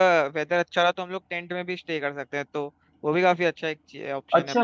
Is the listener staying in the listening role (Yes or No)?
No